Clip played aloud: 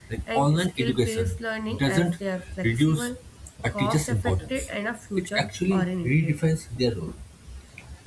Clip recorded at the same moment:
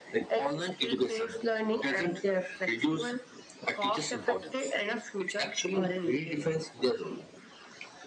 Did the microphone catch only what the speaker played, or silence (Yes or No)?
Yes